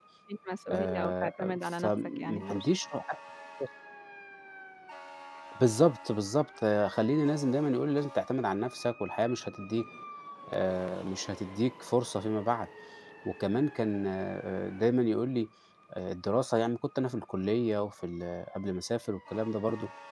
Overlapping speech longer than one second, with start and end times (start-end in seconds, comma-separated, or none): 0.7-2.7